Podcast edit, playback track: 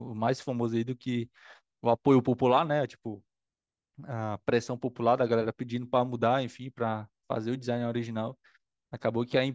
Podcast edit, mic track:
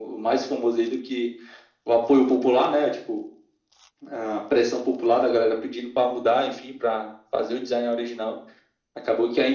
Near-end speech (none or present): none